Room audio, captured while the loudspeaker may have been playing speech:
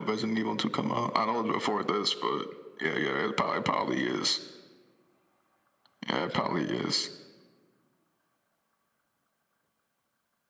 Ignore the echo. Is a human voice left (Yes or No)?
No